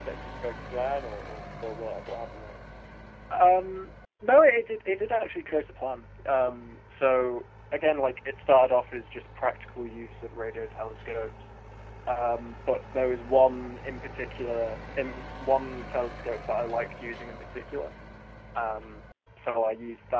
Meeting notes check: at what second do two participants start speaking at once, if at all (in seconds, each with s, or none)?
none